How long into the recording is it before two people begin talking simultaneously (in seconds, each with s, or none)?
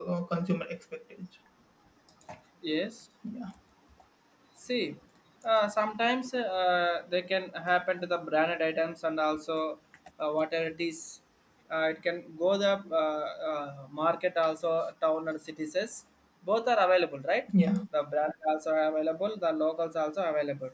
none